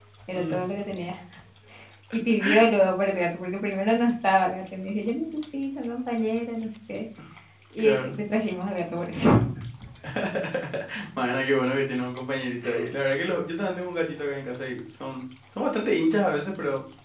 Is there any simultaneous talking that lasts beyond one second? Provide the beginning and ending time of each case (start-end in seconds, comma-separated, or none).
none